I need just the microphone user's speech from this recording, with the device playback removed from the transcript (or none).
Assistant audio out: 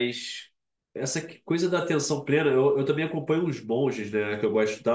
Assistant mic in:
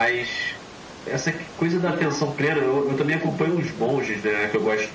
E eu acho isso muito doido.